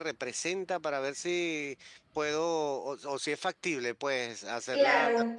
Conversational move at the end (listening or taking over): listening